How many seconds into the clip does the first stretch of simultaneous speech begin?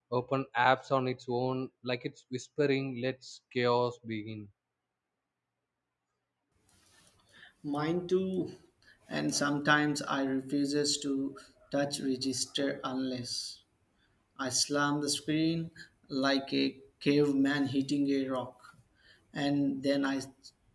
none

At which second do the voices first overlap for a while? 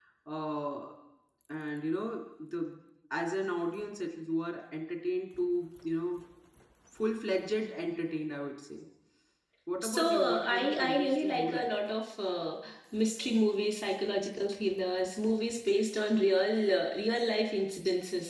9.8 s

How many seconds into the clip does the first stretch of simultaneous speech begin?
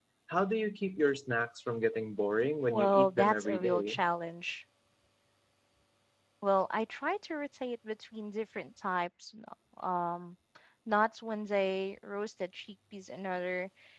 2.7 s

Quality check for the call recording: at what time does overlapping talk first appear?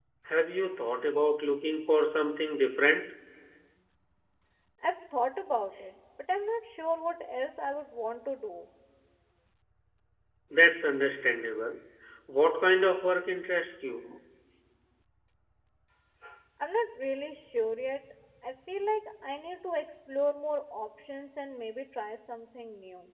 none

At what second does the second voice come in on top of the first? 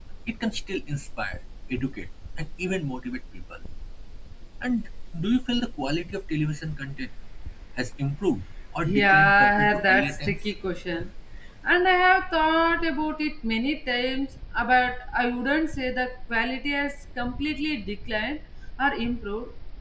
8.8 s

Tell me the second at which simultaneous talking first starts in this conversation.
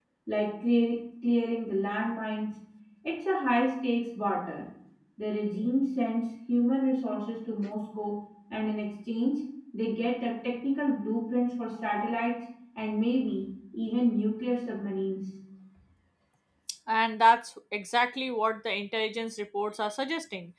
none

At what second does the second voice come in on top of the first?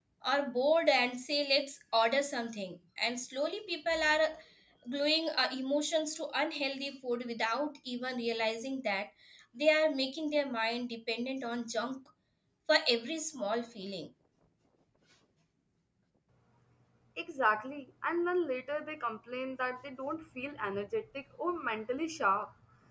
none

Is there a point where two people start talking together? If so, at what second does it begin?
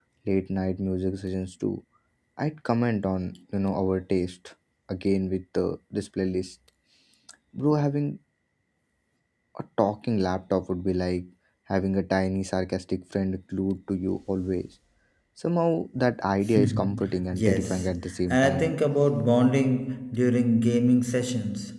16.6 s

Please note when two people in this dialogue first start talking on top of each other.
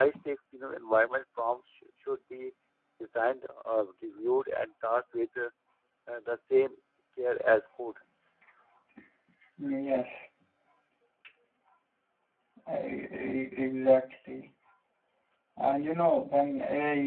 none

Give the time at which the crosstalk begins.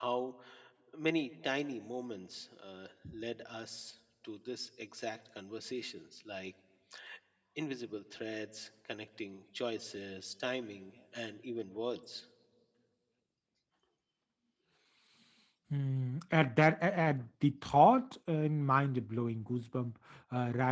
none

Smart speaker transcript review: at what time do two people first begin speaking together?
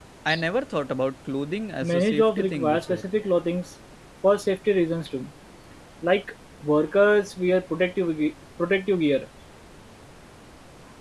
1.8 s

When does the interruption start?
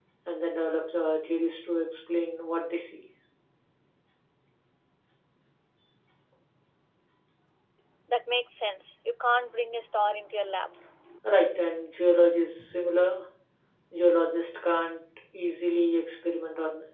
none

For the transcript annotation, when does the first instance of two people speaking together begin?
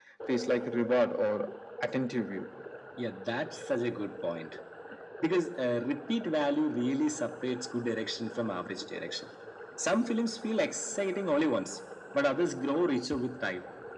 none

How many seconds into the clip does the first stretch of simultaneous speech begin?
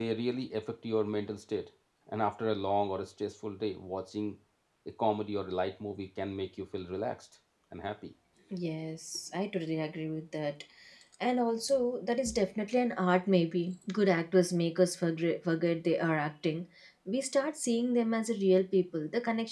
none

